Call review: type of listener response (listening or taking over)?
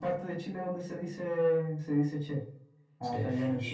taking over